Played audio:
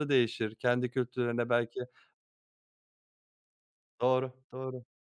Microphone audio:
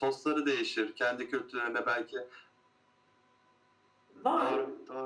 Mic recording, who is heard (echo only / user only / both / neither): both